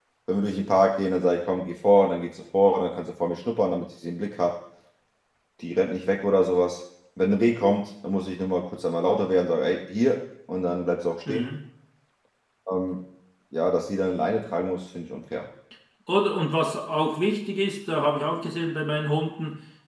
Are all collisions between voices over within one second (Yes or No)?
Yes